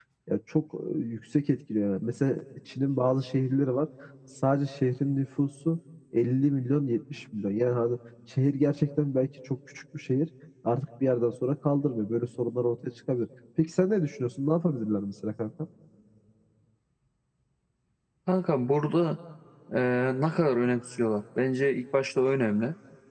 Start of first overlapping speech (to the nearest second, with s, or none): none